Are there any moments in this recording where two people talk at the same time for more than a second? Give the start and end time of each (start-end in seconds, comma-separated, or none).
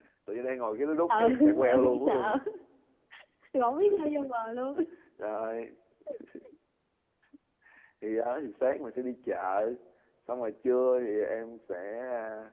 1.1-2.4